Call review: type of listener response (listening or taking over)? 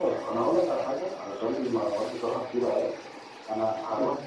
listening